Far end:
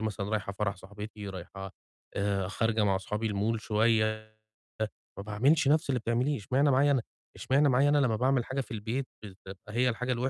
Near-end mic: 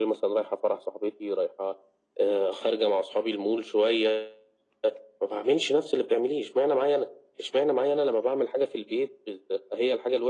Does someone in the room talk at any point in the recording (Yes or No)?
No